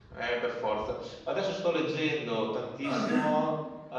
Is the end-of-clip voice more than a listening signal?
No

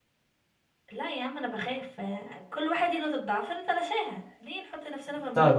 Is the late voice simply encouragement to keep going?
No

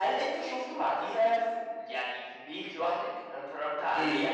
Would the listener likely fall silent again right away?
No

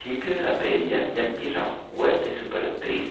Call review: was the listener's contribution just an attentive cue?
No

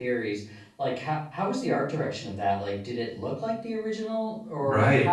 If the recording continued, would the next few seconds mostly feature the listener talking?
Yes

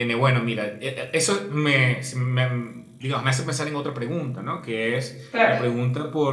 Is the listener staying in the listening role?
Yes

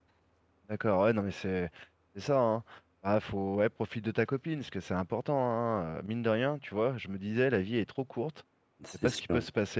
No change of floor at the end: Yes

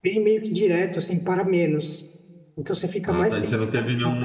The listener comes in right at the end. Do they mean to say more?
Yes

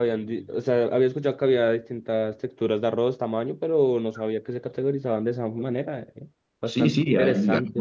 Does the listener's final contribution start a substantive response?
Yes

